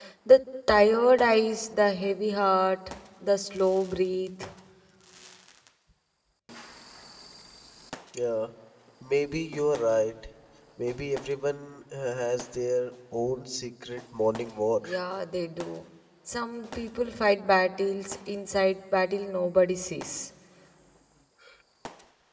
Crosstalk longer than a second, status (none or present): none